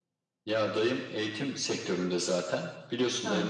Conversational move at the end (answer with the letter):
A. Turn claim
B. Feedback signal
B